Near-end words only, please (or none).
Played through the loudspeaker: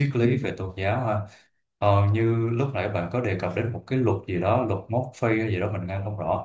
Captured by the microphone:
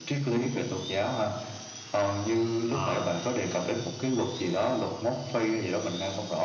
Ờ,